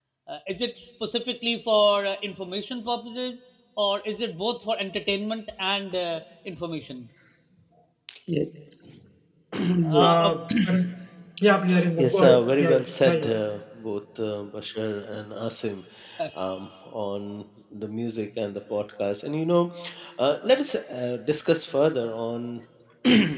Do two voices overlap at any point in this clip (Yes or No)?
Yes